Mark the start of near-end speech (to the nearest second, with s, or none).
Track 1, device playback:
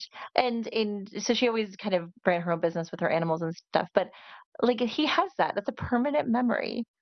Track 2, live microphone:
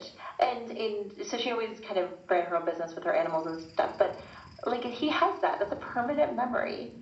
none